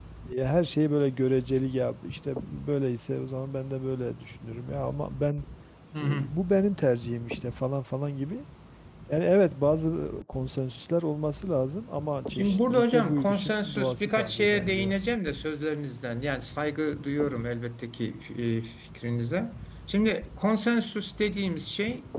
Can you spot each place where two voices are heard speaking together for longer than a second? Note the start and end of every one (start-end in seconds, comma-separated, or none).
12.3-15.0